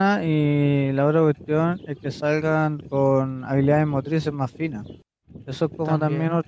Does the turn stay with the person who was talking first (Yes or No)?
Yes